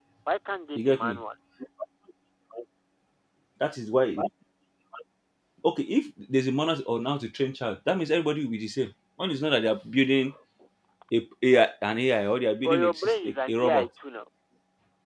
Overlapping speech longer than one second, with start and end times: 12.6-13.9

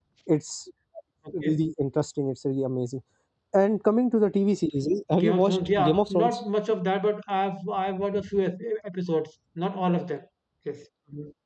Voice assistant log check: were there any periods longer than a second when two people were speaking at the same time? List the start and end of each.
5.2-6.4

